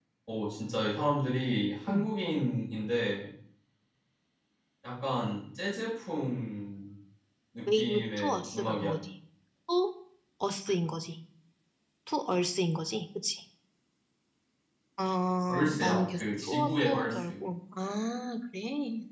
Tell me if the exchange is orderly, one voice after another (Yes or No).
No